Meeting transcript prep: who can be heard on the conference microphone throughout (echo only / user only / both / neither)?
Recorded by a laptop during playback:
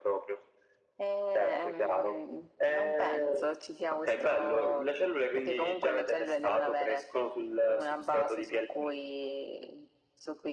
echo only